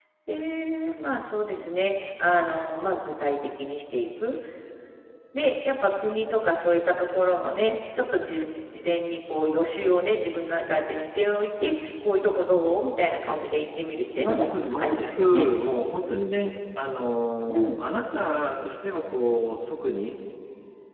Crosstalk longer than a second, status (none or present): present